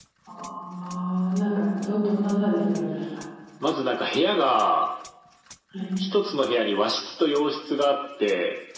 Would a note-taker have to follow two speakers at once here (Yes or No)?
No